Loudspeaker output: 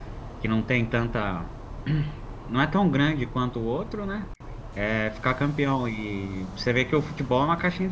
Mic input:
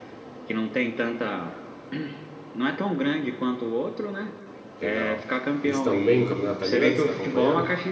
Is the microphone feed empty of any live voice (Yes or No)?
No